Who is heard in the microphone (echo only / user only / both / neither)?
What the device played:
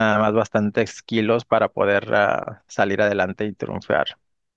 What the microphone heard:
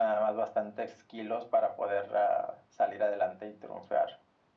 echo only